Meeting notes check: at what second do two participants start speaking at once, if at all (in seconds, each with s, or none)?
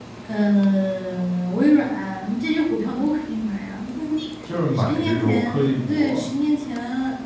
4.8 s